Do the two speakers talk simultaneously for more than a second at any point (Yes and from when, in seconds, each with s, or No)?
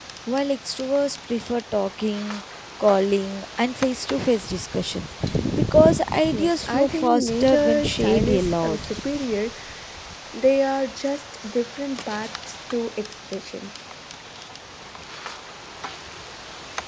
Yes, from 6.3 s